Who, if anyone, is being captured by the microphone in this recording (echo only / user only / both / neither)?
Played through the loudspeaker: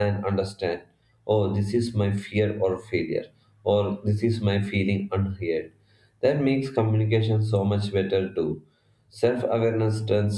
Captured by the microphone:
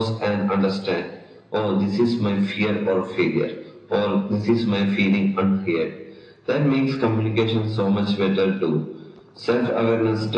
echo only